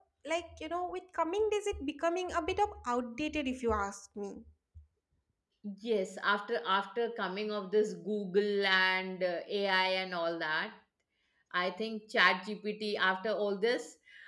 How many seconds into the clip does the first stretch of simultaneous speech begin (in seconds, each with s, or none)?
none